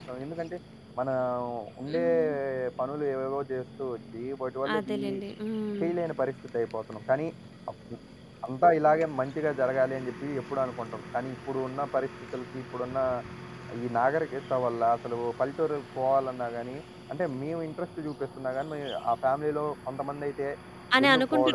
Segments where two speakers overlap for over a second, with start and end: none

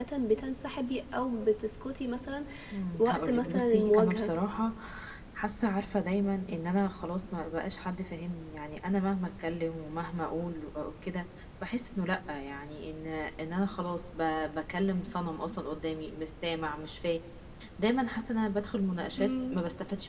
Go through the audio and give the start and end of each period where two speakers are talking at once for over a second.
3.0-4.3

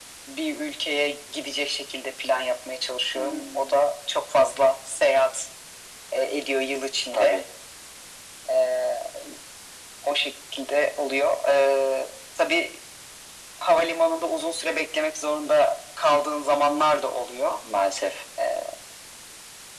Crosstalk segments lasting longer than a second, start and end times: none

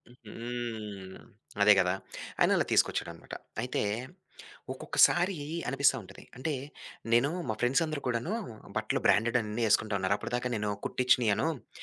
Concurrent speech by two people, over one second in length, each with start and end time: none

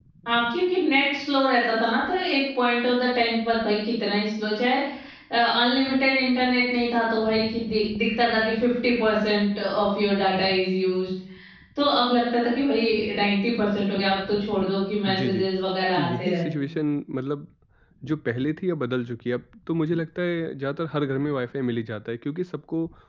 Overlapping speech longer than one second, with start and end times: none

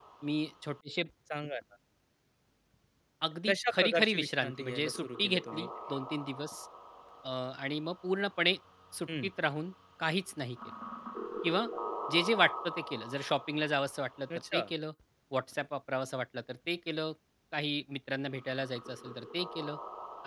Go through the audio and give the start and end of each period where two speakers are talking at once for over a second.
3.5-5.7

